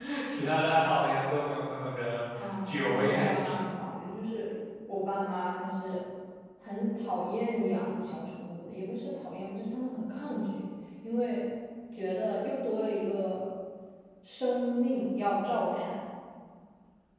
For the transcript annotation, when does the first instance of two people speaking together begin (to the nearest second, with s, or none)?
2 s